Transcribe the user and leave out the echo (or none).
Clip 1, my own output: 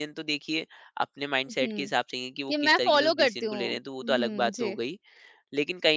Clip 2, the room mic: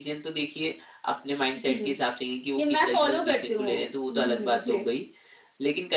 none